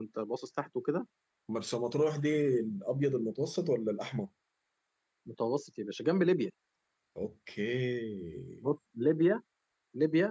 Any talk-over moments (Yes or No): No